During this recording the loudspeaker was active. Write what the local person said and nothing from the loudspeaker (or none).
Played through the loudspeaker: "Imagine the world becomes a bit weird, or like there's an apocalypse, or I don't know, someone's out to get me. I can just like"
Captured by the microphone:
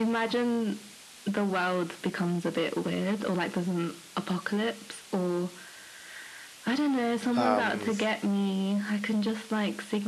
Um,